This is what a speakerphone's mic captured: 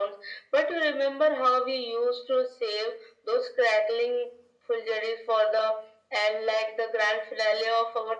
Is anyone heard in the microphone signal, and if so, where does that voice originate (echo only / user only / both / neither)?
echo only